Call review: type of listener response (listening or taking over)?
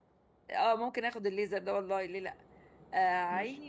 listening